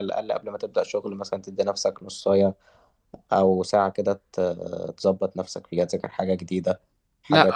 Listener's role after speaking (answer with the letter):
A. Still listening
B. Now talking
B